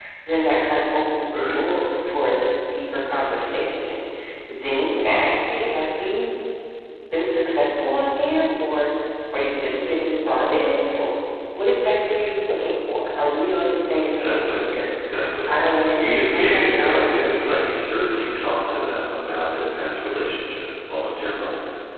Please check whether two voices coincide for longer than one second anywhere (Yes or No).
Yes